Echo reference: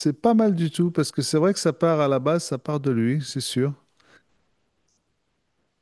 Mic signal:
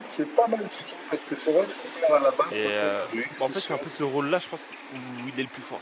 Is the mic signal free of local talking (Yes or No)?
No